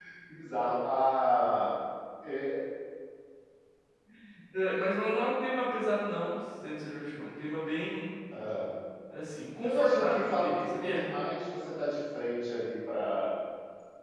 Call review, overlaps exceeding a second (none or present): present